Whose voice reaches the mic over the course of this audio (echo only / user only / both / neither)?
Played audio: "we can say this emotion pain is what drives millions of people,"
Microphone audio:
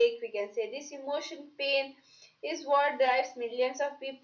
echo only